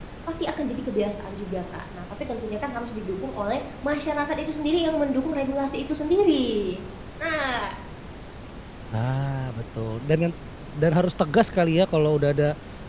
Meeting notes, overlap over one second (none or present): none